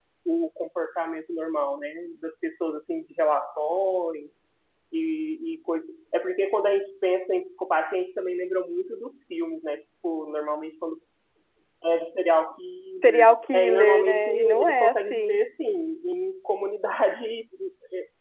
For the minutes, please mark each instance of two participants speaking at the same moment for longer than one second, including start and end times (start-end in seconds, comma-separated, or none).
13.0-15.4